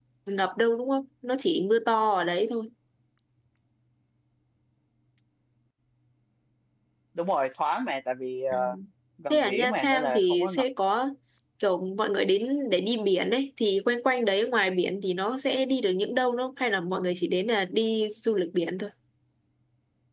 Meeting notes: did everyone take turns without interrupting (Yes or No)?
No